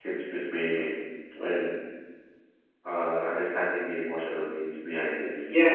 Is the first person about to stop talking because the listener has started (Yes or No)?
Yes